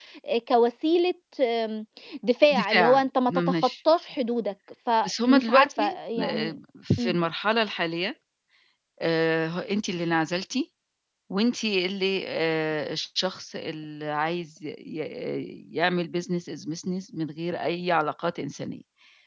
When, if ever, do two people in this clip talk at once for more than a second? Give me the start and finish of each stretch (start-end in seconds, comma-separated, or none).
2.5-3.7, 5.0-6.6